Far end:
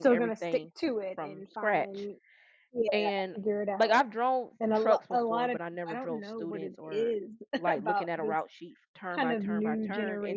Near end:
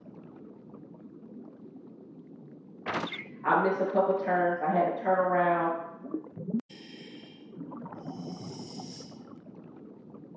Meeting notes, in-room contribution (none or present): present